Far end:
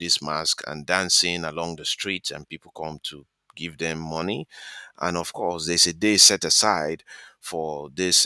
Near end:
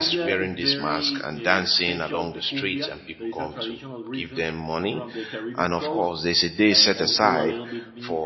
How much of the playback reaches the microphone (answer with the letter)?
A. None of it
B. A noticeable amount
B